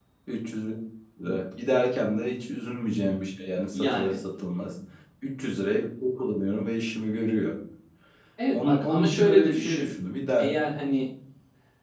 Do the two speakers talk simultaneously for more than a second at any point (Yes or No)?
Yes